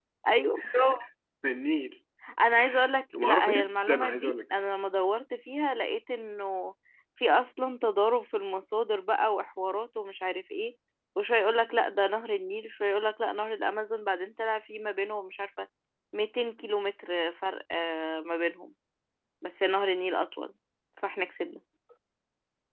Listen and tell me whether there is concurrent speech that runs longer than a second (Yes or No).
Yes